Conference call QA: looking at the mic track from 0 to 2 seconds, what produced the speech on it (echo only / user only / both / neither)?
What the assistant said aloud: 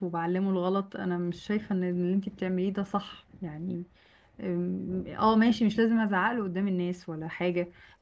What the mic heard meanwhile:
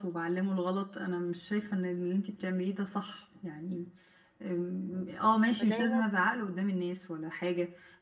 echo only